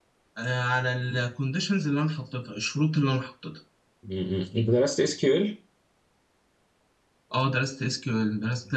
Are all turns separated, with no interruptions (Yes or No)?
Yes